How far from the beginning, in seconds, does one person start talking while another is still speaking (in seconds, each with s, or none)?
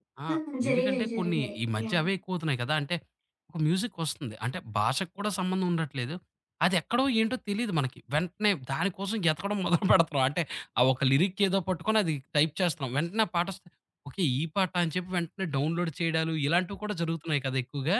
0.7 s